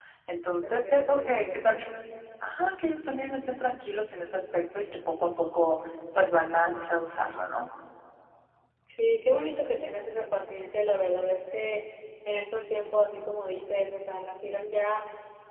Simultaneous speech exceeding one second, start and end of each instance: 0.6-1.8

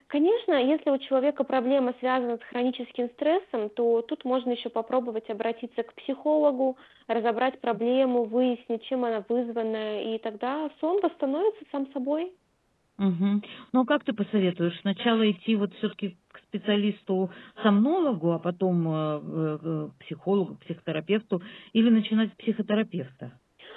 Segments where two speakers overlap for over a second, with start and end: none

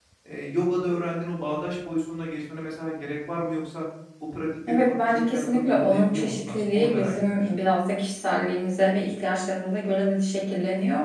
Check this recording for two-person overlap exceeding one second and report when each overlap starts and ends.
4.7-7.5

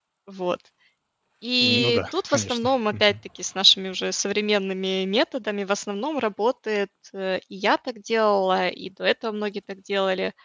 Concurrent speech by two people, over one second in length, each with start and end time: 1.6-3.1

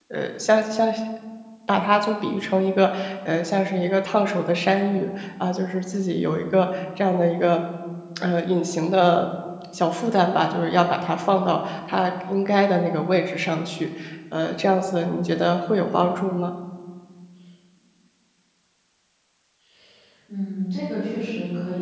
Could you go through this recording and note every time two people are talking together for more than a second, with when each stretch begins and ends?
none

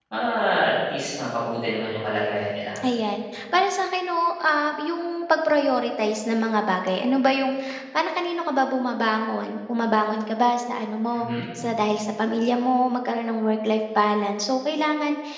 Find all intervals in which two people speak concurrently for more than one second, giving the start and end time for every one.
none

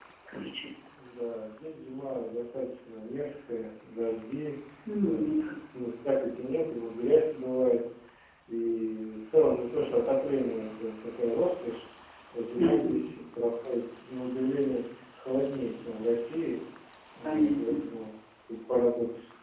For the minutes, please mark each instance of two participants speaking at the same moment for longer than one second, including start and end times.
none

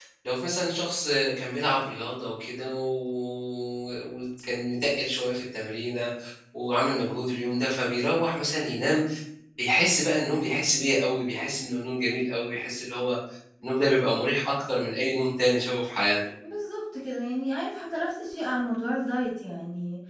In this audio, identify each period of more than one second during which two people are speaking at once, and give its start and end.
none

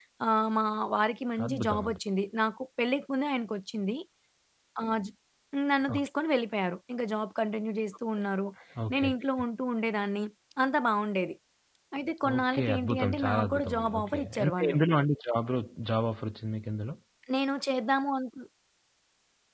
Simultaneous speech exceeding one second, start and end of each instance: 12.3-14.8

